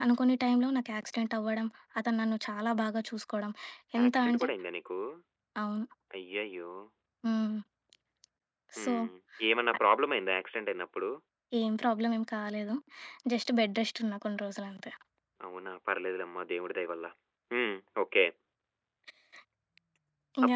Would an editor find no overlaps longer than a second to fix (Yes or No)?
Yes